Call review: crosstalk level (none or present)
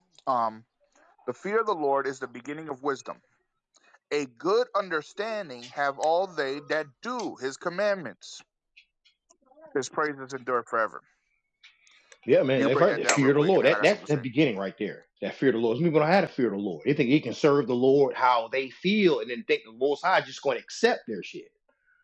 present